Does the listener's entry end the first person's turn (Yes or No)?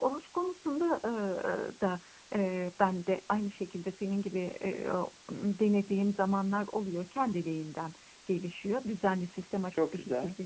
No